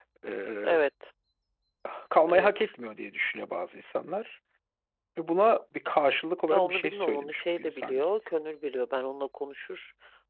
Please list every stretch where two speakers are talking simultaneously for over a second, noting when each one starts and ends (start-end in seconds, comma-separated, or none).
6.5-8.0